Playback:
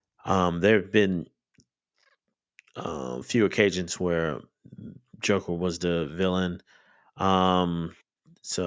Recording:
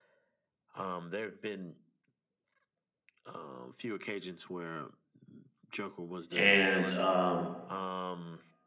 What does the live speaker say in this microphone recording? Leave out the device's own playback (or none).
and um,